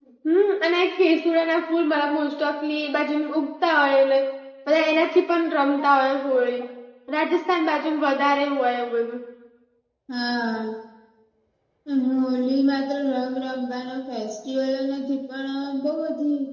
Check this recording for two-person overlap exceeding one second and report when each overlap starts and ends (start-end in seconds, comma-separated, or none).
none